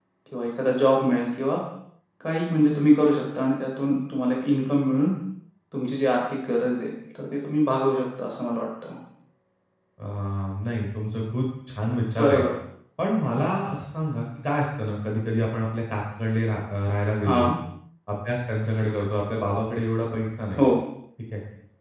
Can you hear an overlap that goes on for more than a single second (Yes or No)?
No